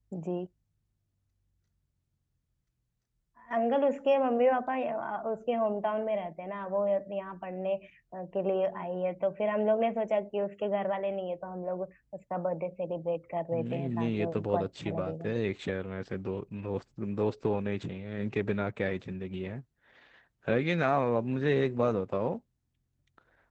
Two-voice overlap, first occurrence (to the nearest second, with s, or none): 14 s